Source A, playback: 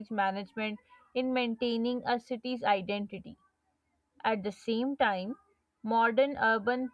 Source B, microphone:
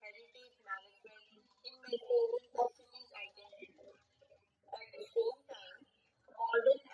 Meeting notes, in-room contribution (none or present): none